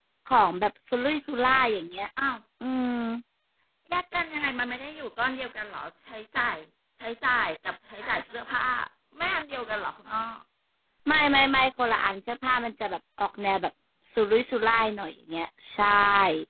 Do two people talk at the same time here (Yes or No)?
No